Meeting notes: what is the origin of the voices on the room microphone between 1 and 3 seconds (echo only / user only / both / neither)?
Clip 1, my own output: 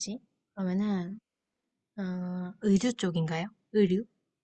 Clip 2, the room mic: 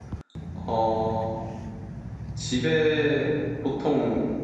user only